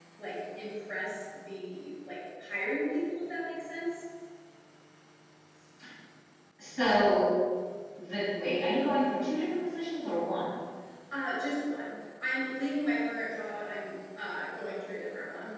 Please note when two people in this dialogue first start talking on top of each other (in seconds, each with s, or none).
none